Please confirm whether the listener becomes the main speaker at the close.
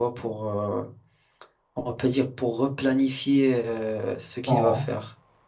Yes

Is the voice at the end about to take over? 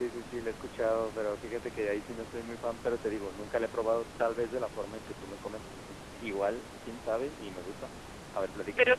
Yes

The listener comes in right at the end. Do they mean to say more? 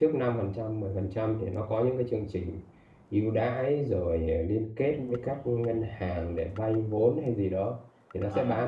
No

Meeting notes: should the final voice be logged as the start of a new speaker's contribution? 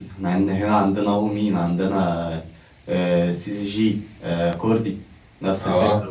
Yes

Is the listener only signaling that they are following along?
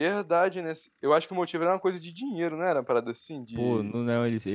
No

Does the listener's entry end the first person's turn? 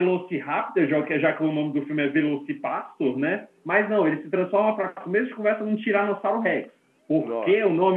No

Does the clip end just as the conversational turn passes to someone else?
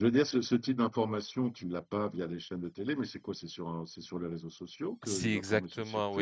Yes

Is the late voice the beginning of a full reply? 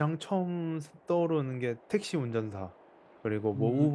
No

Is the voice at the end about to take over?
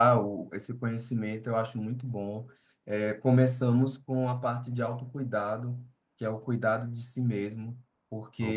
No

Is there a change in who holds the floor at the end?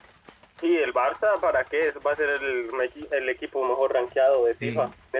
Yes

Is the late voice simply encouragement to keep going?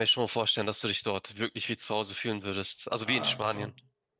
No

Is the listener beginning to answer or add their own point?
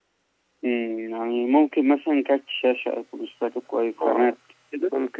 Yes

